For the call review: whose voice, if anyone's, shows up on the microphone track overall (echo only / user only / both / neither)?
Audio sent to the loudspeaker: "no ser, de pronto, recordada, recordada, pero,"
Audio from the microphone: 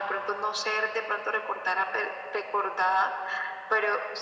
echo only